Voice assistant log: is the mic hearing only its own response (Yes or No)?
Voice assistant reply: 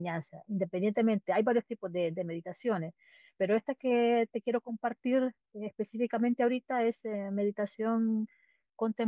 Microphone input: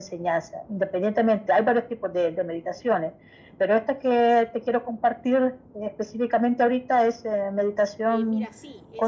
No